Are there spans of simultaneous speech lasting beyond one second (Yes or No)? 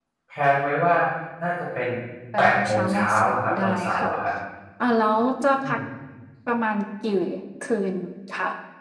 Yes